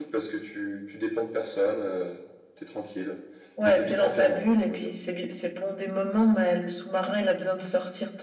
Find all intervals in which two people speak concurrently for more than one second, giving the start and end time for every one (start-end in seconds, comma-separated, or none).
3.6-4.9